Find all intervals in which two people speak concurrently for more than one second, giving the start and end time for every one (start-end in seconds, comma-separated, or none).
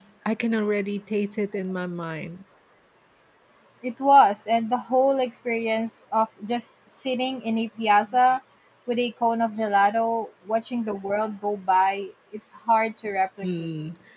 none